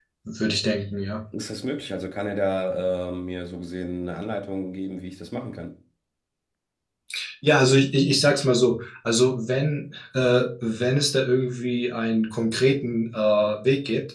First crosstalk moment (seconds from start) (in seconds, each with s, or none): none